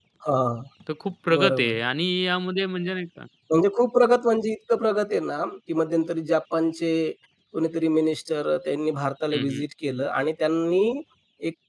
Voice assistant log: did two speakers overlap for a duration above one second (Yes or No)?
No